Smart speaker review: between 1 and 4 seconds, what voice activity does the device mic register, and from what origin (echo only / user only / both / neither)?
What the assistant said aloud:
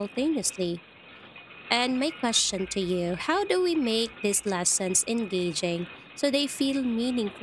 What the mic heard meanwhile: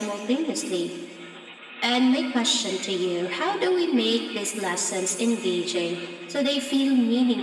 echo only